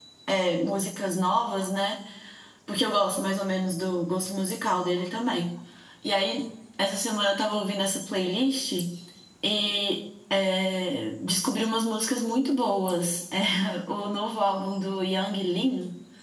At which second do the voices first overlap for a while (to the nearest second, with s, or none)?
none